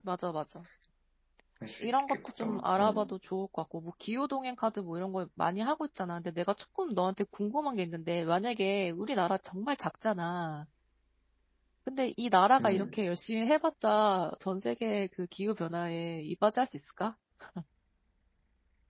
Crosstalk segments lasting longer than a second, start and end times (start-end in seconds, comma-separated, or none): 1.8-3.1